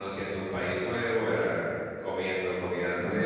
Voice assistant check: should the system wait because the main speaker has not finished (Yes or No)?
Yes